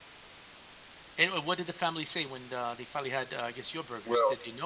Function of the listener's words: taking over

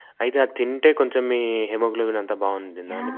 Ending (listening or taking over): taking over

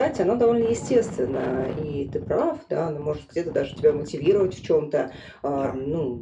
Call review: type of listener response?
listening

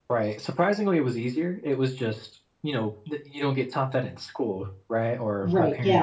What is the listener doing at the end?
taking over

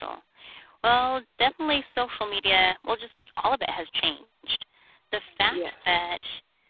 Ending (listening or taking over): listening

